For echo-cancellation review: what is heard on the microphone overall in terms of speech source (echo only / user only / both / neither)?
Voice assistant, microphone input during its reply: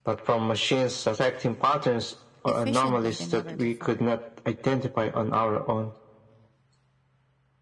both